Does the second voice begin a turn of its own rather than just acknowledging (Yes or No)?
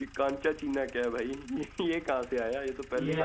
Yes